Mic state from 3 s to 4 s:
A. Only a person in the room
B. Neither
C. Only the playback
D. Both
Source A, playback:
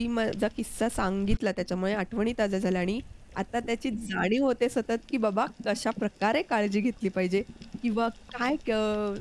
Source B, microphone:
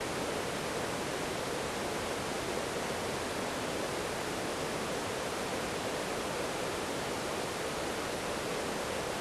B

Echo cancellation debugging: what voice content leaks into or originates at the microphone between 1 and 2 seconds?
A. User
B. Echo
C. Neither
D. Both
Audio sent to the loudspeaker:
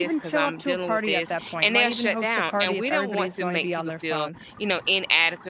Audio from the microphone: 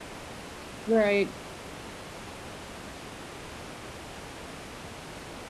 A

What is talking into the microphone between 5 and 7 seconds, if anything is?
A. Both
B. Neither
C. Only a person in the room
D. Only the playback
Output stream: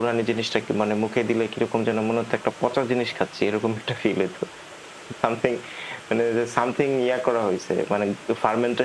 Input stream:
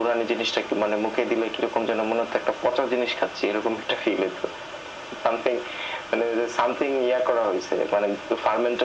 D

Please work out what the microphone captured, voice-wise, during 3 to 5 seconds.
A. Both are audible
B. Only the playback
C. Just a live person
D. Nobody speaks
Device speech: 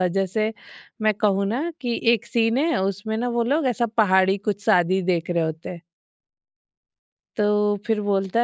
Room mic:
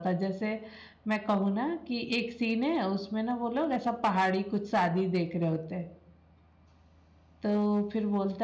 B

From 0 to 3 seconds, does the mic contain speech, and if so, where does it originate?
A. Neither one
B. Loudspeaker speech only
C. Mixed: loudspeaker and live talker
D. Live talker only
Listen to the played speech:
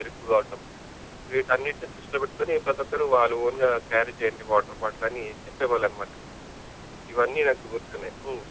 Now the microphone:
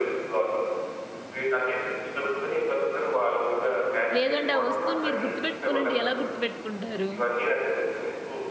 B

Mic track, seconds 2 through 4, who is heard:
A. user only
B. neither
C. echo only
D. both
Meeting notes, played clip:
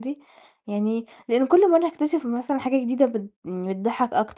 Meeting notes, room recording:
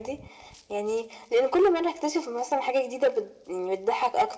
C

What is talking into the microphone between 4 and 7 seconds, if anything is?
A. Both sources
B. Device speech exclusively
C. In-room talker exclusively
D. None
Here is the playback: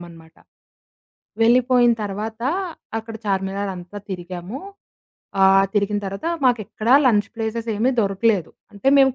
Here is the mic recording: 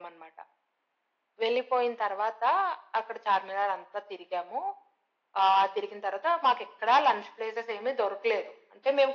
B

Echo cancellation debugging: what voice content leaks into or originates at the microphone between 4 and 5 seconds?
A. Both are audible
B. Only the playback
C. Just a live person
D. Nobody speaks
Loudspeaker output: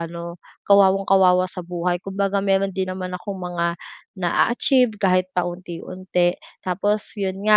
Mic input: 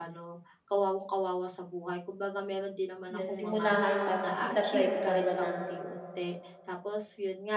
A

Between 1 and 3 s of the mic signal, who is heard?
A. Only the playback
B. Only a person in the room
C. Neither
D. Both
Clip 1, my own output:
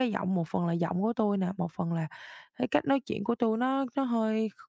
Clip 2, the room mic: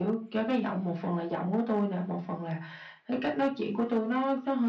A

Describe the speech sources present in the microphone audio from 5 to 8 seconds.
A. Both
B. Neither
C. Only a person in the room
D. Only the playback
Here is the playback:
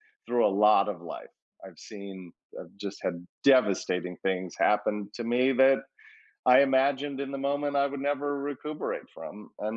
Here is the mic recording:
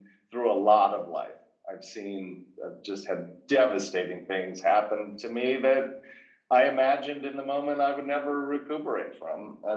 D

